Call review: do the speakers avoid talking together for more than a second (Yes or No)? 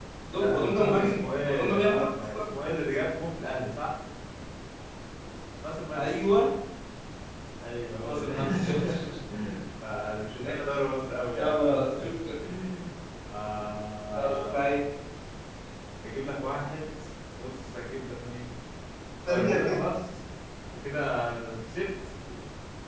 No